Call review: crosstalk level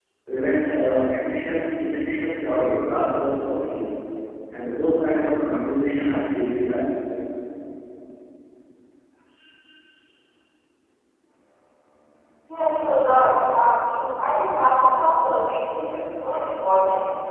none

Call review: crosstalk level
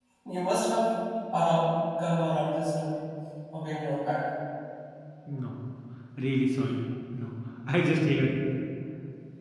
none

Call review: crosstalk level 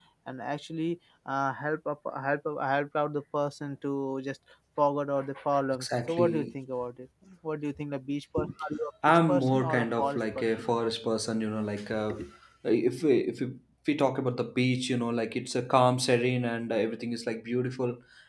present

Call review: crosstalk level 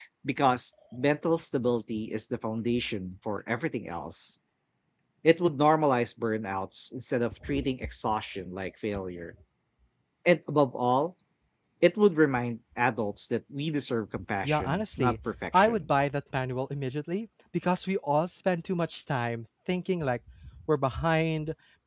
present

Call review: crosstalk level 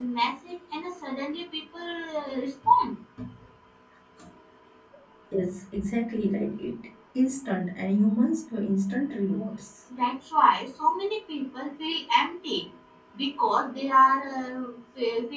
none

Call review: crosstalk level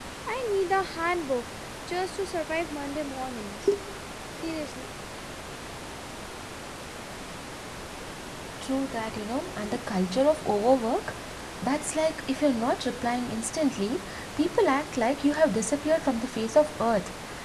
none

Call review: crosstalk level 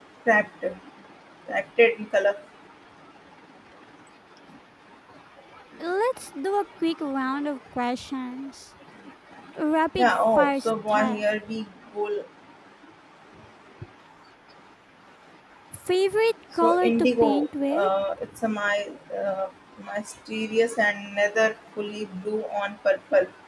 present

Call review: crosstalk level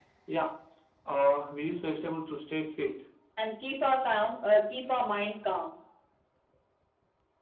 none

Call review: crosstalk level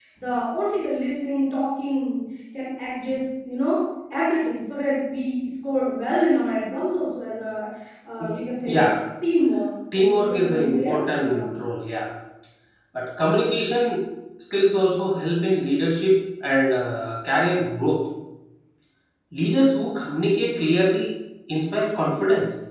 present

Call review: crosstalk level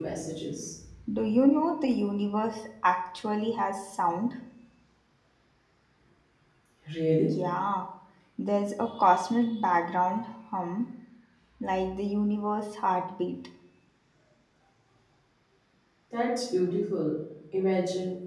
none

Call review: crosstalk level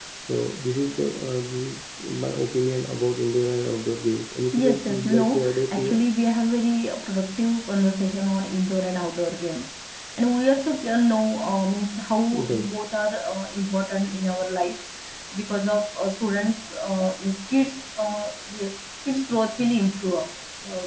present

